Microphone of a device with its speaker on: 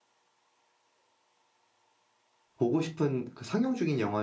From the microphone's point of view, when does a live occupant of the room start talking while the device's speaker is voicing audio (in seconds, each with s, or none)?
2.6 s